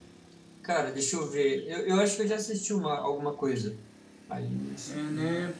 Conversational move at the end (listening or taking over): taking over